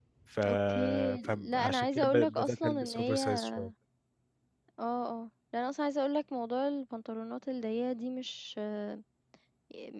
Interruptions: present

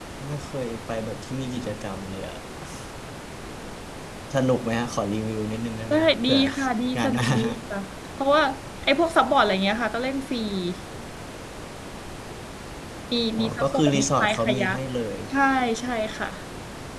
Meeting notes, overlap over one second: present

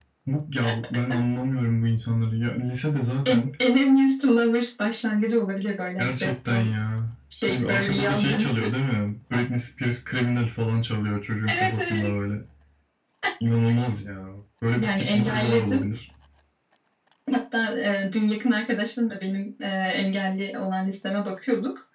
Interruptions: present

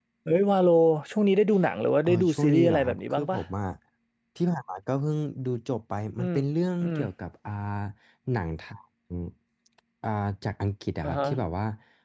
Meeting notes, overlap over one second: present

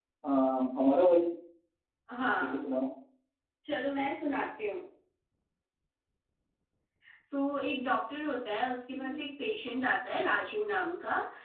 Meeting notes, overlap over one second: none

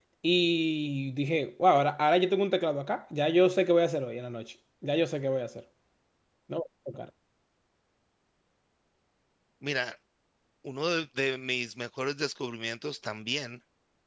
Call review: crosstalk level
none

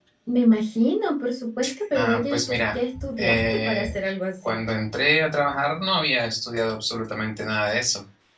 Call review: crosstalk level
present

